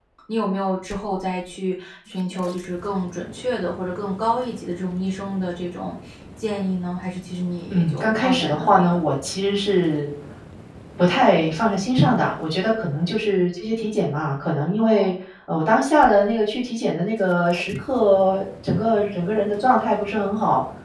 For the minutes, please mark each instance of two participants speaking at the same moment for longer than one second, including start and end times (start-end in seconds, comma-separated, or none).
7.7-9.0